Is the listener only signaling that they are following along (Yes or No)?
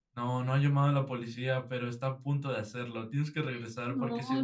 No